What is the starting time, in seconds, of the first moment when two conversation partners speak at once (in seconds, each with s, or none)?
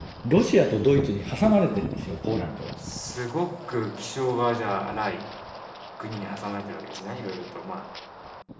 none